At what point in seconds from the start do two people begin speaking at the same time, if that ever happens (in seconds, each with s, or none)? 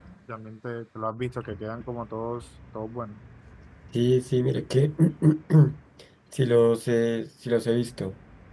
none